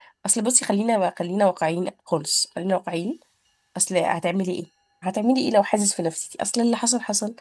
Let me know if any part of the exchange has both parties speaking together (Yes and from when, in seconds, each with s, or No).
No